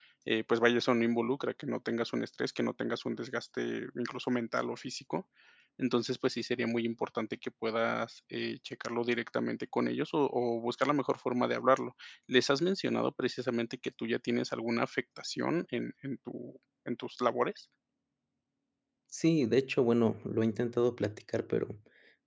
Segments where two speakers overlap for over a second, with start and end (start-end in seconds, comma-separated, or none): none